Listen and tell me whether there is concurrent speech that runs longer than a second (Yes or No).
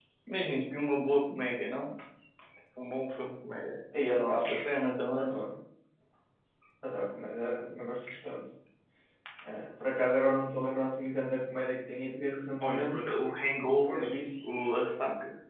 No